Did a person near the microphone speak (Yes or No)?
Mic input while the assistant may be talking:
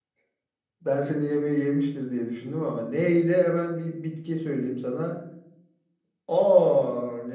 Yes